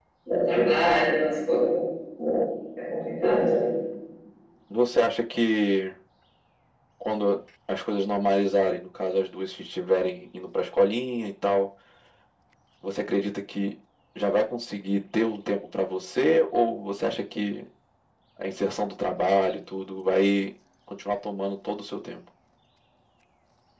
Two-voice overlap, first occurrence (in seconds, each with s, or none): none